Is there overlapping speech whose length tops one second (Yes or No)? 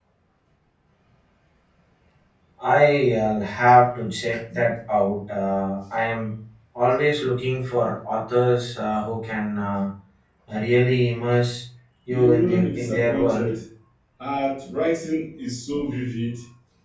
Yes